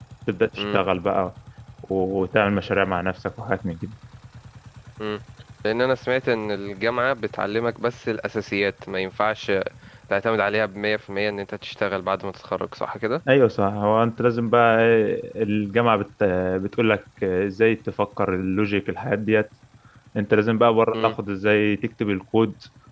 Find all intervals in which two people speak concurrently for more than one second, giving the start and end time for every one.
none

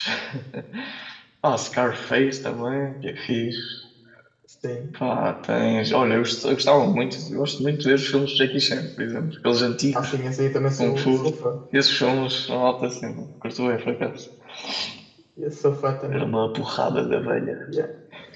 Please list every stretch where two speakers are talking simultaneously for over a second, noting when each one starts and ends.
none

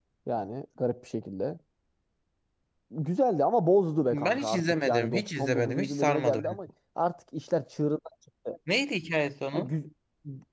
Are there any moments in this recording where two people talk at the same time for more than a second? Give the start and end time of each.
4.1-6.6

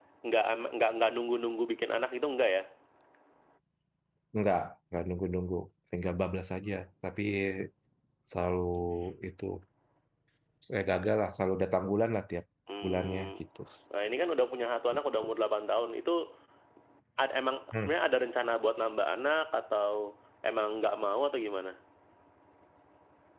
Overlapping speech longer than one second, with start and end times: none

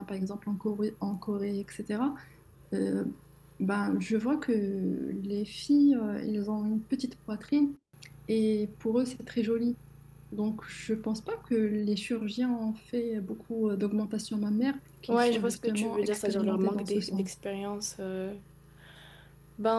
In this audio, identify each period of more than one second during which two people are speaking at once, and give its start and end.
15.1-17.3

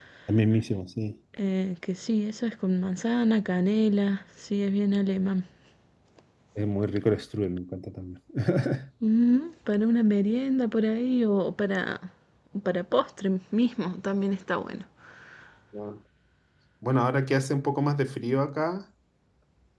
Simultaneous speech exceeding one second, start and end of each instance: none

